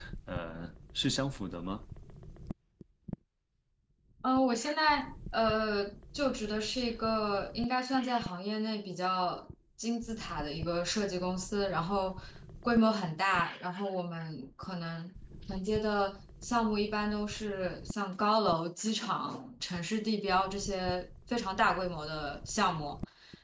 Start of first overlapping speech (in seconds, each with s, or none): none